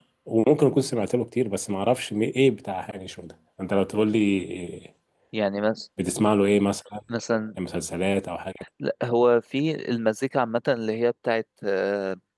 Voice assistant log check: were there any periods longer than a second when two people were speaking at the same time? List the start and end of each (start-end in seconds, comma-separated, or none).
none